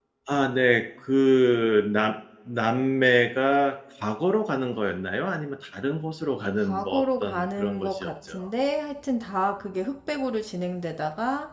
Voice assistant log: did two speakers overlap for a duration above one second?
Yes, from 6.5 s

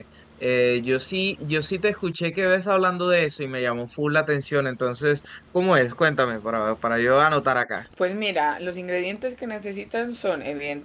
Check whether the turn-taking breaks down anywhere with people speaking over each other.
No

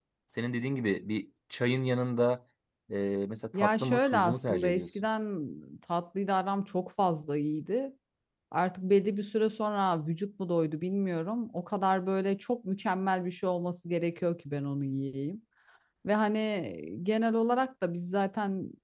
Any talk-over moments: Yes, from 3.5 s

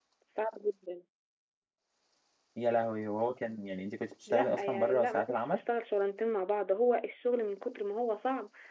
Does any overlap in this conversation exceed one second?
Yes, from 4.3 s

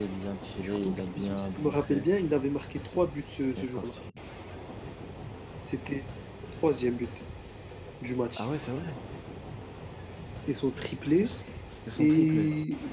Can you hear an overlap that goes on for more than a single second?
Yes, from 0.6 s

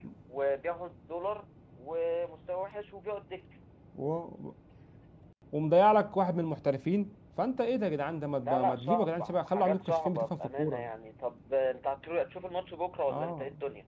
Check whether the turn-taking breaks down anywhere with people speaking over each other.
Yes, from 8.4 s

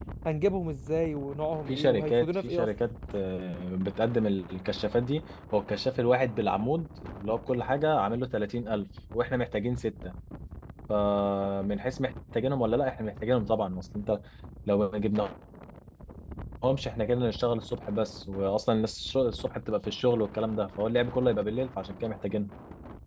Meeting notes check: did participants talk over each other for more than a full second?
Yes, from 1.7 s

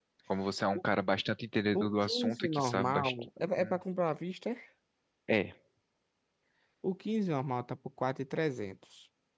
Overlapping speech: Yes, from 1.7 s

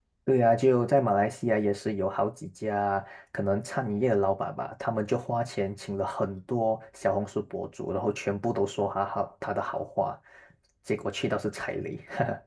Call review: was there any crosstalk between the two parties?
No

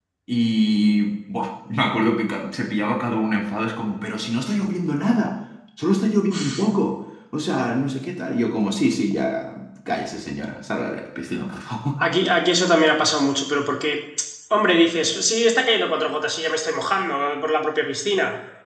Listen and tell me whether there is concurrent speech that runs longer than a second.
No

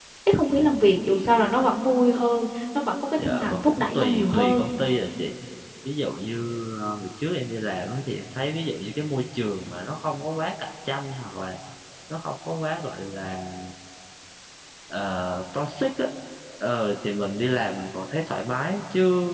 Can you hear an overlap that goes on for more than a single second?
Yes, from 3.2 s

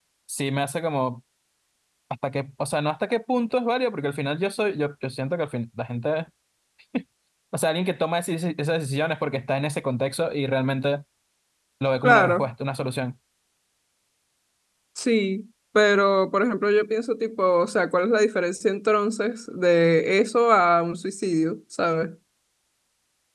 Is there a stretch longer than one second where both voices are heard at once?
No

